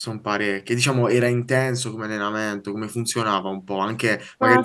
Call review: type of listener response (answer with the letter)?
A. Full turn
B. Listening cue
A